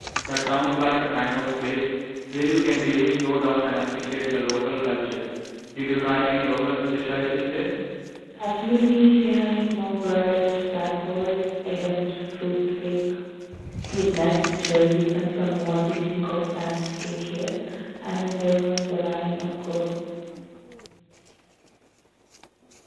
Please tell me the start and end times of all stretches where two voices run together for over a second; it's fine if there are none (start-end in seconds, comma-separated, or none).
none